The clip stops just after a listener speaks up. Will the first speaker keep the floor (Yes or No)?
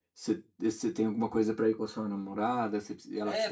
No